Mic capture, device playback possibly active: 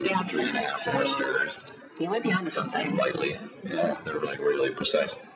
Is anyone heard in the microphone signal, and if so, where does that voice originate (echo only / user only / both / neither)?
echo only